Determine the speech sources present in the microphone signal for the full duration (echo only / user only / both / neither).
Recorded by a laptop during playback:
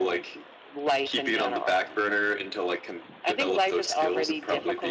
echo only